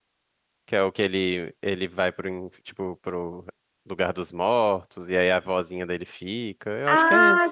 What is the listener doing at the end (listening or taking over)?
taking over